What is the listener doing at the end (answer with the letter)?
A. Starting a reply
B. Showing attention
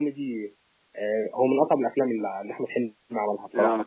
A